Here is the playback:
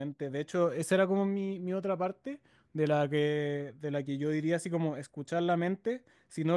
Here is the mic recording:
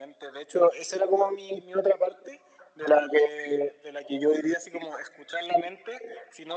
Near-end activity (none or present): none